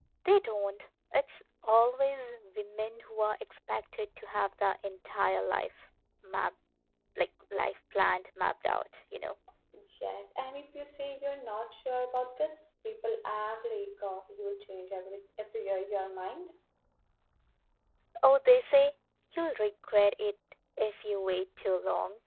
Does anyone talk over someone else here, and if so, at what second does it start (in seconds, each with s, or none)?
none